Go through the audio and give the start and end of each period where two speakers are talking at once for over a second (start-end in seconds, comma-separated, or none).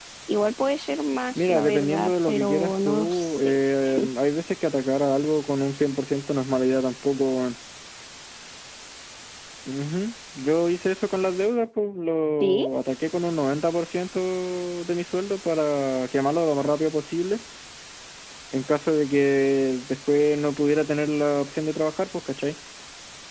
1.5-3.5